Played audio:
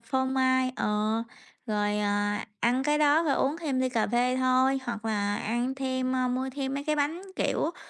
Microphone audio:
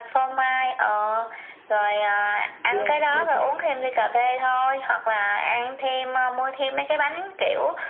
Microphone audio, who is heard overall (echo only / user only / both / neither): both